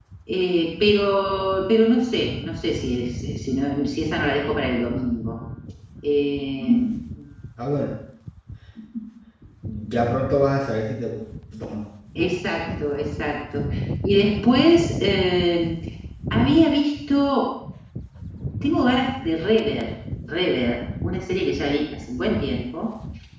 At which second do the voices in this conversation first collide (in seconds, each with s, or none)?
none